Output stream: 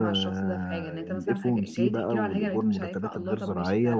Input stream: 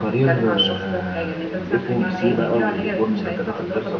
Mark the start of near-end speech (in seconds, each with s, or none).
1.9 s